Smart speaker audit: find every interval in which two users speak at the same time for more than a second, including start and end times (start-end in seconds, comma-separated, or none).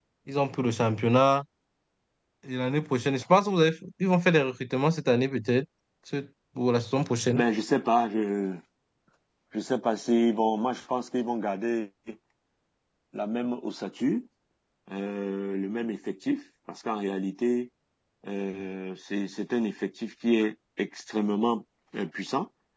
none